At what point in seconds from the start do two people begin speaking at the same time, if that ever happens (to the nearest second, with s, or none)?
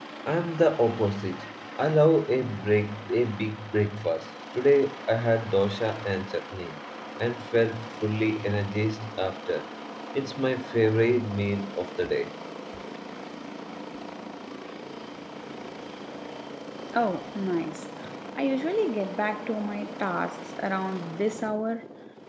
none